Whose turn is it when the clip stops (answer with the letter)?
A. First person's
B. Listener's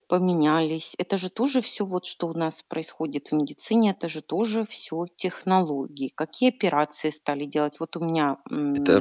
B